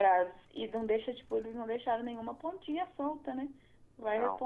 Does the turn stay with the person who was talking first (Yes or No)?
Yes